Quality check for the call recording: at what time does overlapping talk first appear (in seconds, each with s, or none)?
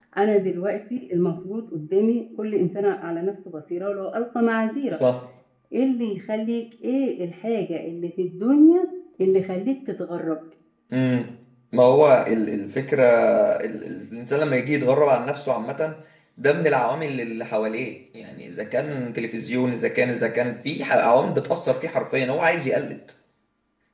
none